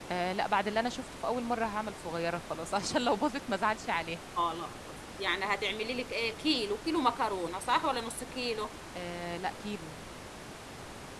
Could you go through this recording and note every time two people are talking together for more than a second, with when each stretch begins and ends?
none

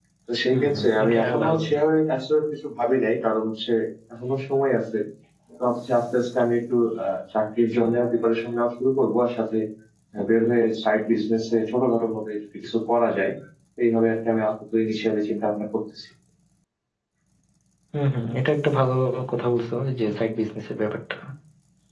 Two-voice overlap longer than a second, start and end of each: 0.5-1.8

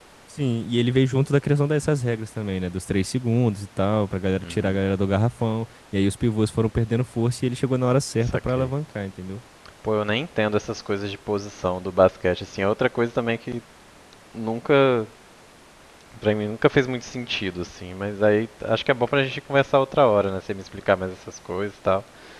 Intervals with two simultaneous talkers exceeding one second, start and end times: none

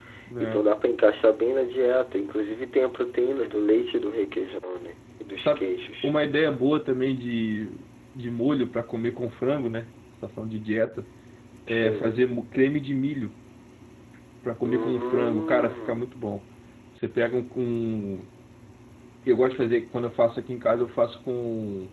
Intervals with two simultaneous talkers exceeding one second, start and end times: 14.6-16.1

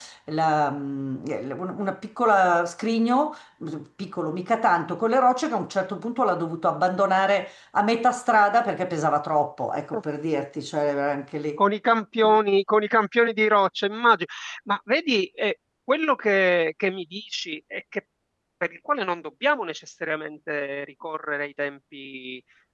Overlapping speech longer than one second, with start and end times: none

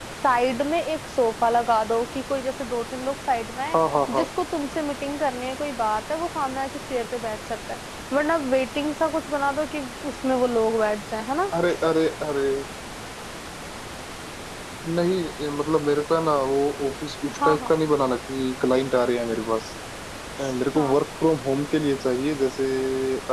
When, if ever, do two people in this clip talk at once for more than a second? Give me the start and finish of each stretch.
none

